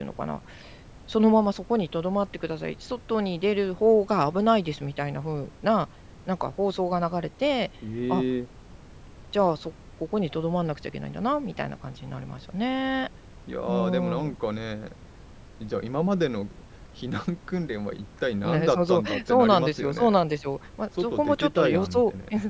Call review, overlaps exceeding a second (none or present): present